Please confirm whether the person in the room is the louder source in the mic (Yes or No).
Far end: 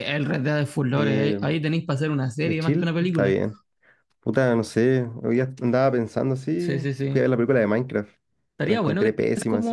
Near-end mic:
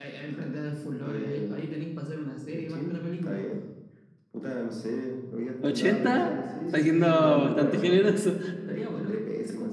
Yes